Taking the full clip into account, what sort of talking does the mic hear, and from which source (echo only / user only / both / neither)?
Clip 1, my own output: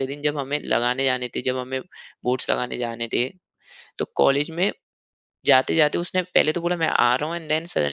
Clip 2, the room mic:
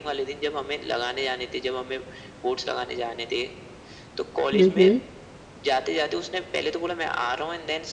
both